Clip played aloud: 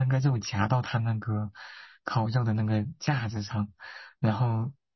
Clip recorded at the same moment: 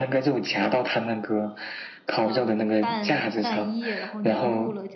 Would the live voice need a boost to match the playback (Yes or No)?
Yes